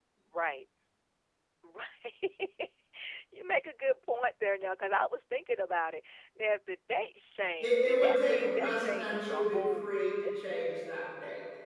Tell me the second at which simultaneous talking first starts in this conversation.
7.6 s

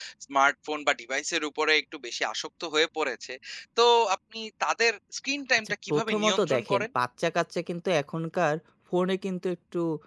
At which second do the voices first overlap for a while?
5.7 s

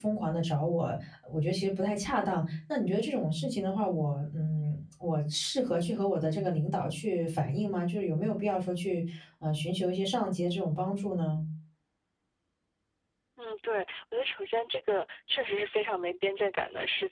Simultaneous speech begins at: none

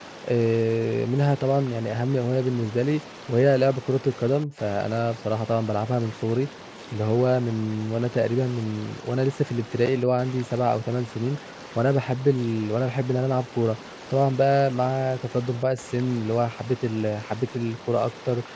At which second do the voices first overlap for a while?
none

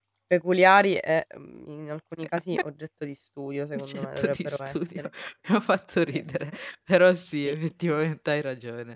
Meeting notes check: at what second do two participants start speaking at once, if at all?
3.7 s

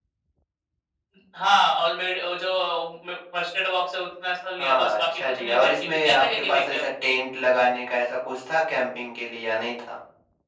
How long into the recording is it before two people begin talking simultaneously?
4.6 s

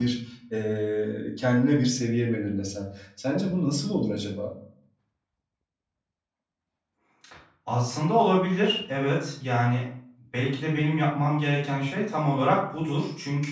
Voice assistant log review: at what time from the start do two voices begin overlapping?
none

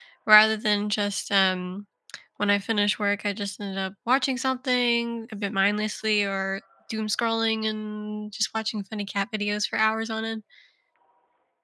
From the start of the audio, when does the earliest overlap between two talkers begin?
none

